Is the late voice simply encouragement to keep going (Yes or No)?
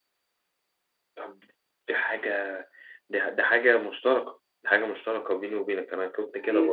No